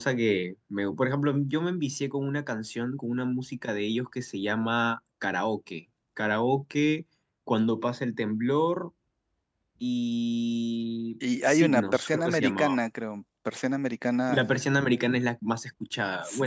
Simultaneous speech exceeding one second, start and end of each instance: 11.5-12.8

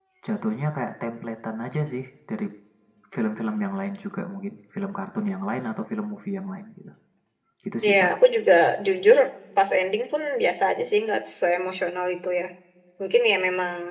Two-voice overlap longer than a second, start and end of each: none

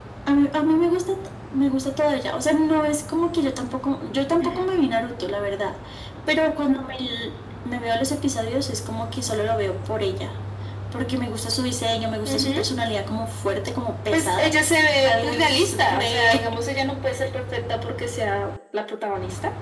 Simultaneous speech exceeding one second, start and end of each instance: 15.0-16.4

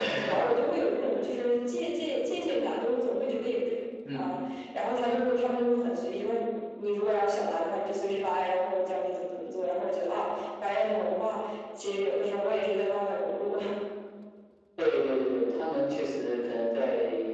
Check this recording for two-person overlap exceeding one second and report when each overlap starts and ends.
none

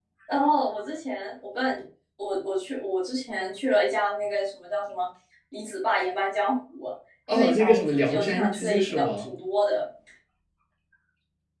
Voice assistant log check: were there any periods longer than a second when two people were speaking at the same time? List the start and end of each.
7.3-9.3

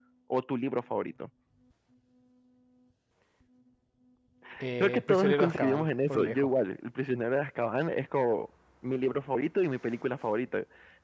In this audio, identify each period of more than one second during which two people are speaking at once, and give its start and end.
4.8-6.5

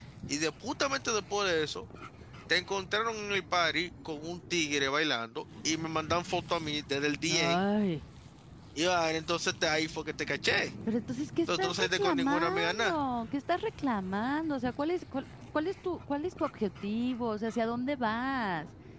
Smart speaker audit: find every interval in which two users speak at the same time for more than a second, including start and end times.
11.6-13.0

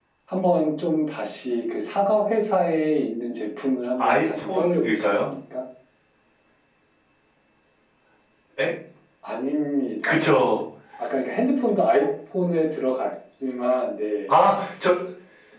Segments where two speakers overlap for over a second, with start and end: 4.0-5.3

